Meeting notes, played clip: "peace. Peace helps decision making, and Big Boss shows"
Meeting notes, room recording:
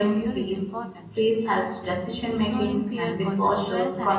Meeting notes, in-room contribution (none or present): present